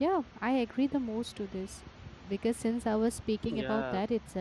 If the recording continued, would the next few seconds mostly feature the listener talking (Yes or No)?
No